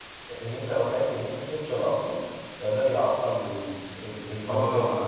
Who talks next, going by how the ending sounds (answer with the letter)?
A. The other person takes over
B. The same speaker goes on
A